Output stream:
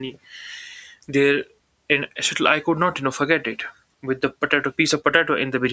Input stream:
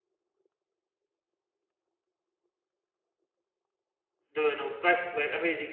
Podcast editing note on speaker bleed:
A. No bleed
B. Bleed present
A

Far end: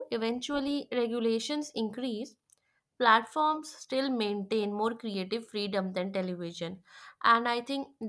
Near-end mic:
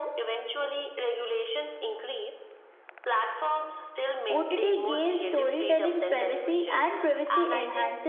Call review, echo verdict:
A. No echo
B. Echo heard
B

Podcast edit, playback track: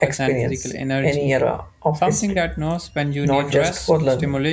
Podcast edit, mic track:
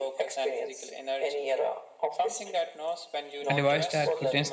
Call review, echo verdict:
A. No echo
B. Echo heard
B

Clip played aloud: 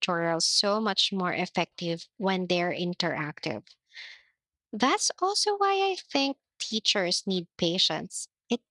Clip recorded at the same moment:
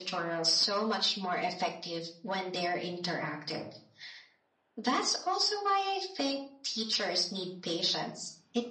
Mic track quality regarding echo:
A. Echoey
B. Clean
A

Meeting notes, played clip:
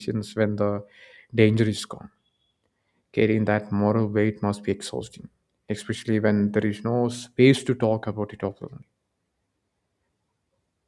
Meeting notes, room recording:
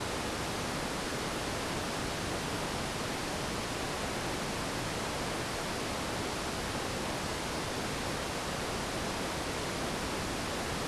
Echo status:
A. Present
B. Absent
B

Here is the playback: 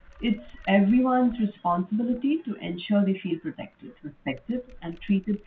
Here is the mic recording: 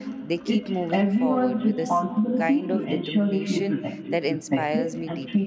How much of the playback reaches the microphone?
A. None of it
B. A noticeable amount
B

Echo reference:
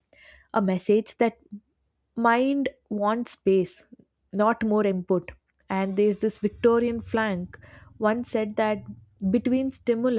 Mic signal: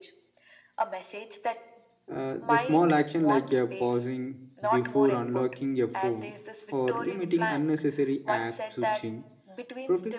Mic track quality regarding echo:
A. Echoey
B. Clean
A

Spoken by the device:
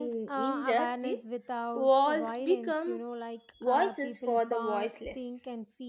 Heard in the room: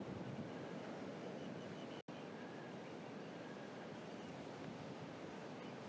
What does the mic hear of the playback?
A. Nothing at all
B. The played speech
A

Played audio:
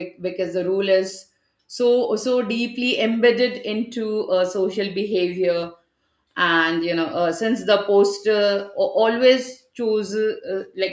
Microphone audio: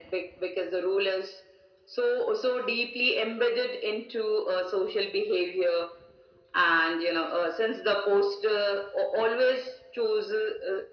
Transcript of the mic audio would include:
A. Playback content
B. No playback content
A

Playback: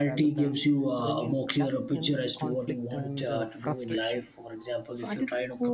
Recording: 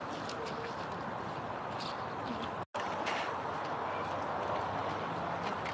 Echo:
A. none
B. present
A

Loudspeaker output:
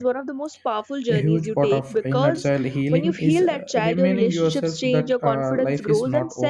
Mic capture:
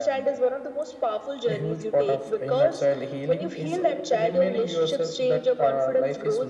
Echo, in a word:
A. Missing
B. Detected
B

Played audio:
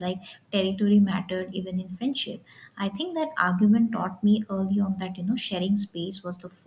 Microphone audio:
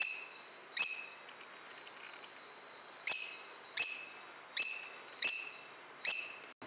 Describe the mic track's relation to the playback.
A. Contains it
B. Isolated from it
B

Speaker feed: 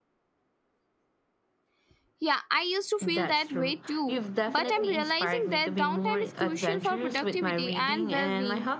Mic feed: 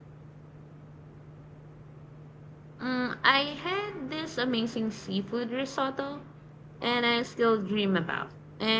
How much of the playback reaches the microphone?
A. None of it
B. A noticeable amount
A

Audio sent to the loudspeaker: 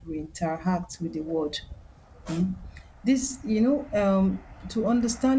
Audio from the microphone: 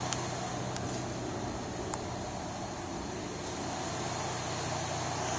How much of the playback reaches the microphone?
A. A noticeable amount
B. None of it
B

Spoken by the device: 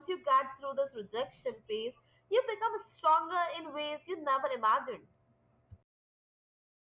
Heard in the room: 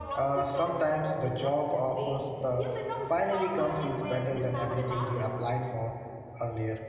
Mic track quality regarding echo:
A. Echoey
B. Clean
A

